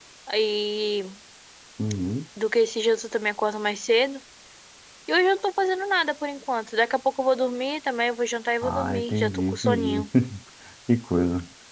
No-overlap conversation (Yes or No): No